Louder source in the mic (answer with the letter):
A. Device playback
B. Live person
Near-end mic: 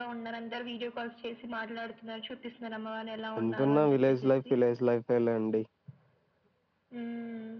B